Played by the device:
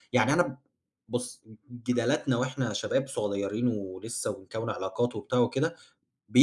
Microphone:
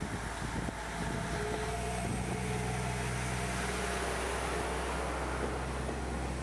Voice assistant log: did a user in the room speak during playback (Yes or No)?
No